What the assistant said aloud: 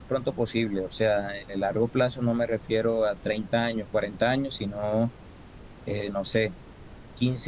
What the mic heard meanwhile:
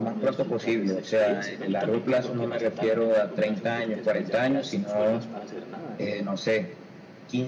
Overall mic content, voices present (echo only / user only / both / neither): both